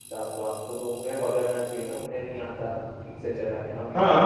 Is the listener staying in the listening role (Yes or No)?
No